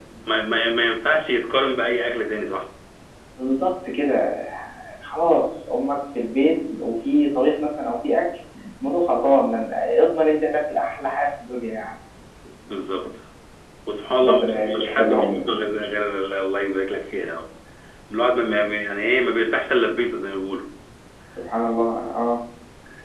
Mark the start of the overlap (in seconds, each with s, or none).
14.2 s